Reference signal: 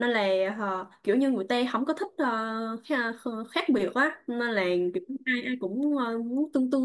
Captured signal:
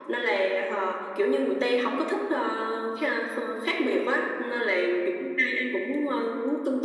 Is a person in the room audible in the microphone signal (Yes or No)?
No